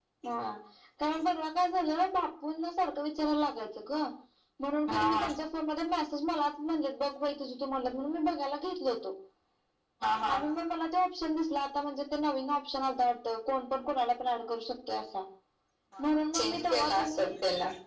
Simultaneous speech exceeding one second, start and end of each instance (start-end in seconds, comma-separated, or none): 16.0-17.3